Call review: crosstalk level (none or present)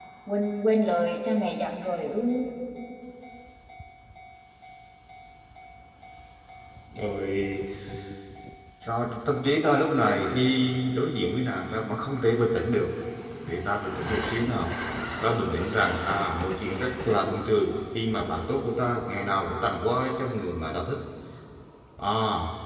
none